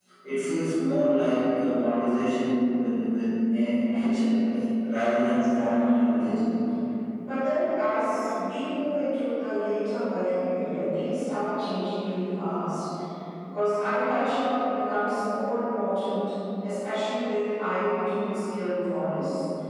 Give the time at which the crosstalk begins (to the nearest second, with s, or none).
none